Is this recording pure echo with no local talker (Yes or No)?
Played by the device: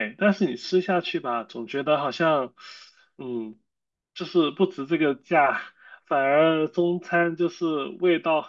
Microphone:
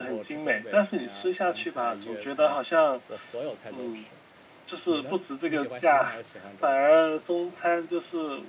No